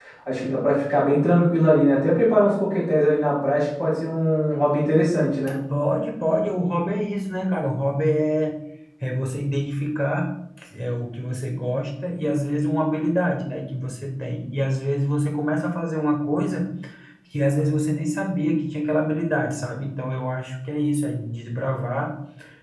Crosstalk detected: No

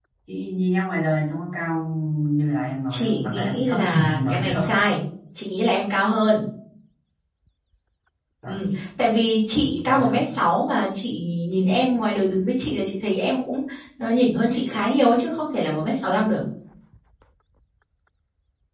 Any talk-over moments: Yes, from 2.9 s

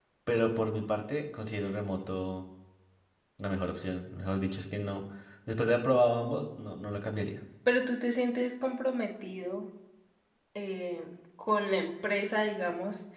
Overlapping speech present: No

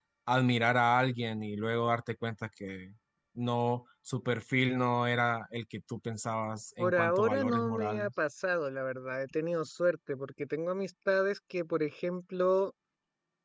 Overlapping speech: Yes, from 6.8 s

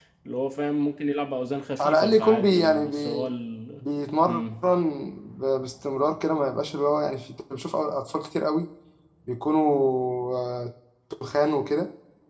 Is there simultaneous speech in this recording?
Yes, from 1.8 s

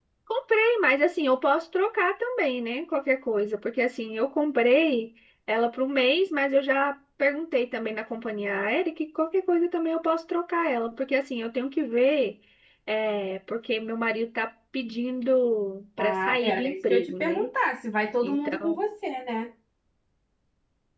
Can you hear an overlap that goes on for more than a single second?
Yes, from 16.0 s

